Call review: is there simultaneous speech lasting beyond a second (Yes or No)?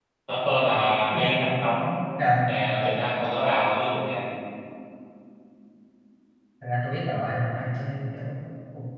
No